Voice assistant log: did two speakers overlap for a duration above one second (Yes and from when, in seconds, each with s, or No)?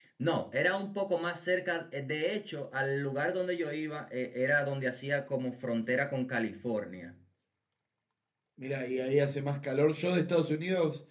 No